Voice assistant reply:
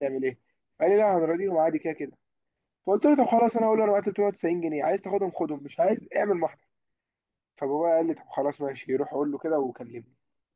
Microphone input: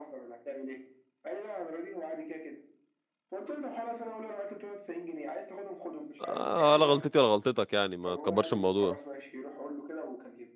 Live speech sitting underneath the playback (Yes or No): No